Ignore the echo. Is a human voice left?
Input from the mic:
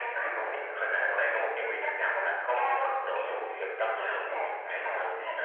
No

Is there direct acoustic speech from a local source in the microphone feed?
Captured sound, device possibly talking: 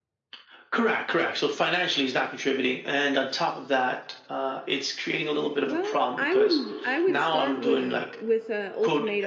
Yes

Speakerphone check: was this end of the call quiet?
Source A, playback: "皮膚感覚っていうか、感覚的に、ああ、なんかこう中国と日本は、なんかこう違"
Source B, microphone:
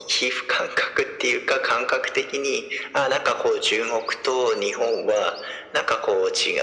Yes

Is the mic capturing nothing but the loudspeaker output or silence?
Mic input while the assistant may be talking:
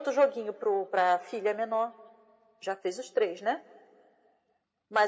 Yes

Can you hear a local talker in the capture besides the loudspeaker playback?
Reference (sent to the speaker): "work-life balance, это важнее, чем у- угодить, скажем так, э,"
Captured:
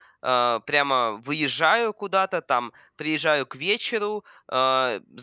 Yes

